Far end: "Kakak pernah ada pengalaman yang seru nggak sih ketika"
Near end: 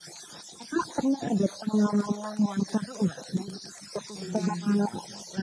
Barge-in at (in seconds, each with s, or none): 4.1 s